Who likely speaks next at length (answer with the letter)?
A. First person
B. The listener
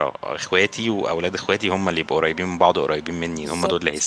B